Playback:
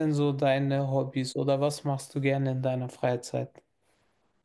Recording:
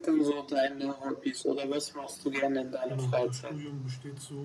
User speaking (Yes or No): Yes